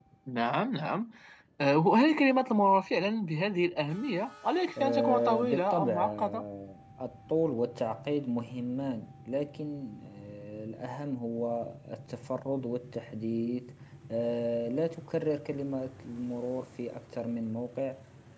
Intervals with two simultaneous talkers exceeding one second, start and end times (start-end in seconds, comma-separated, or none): 4.8-6.4